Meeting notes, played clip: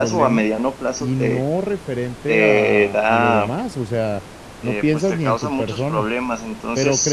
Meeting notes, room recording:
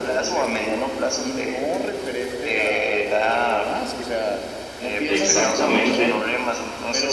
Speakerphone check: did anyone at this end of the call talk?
Yes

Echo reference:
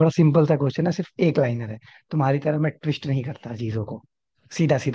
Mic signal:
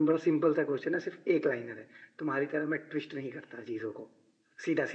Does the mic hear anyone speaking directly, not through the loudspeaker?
No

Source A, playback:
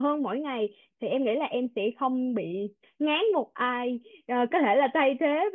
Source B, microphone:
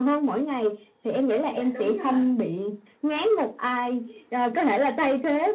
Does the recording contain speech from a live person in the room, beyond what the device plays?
Yes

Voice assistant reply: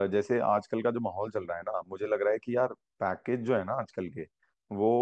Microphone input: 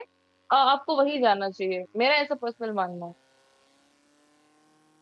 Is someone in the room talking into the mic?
Yes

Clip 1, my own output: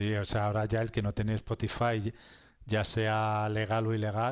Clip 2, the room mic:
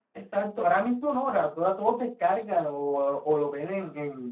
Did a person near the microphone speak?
Yes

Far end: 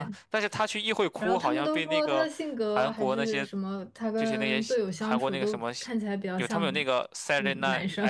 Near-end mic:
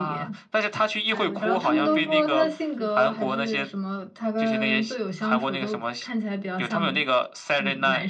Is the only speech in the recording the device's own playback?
No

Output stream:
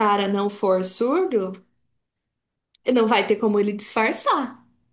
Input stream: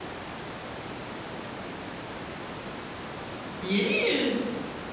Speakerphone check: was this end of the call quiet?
No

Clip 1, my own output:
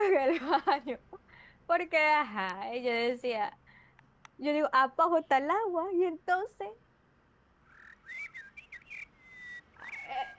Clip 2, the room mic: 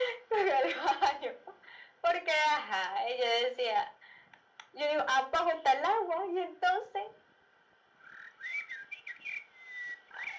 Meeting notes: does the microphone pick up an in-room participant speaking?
No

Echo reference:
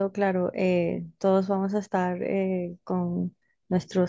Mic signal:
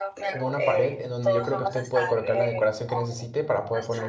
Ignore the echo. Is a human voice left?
Yes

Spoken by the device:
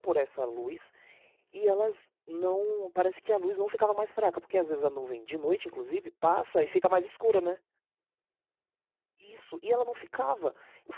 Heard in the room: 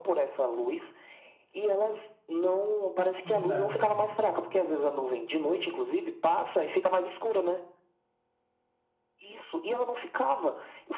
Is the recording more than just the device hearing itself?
Yes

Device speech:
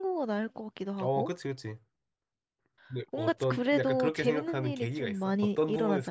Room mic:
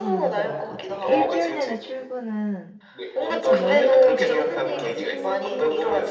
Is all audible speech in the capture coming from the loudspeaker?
No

